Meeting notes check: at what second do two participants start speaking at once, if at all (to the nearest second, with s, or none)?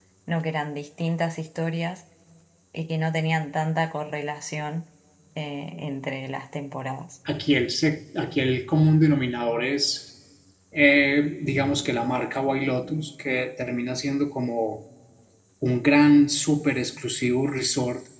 none